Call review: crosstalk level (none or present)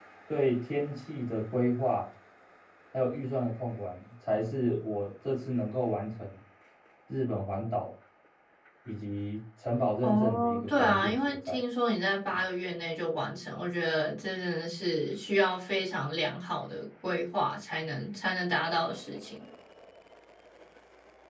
present